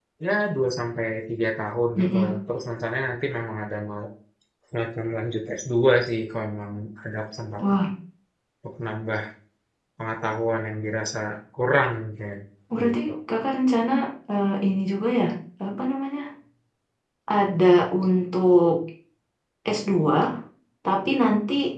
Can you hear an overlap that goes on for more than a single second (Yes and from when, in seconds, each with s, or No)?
No